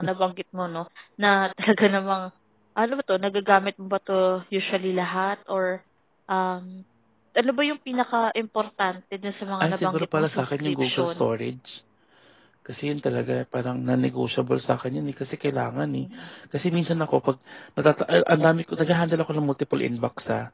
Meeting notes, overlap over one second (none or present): present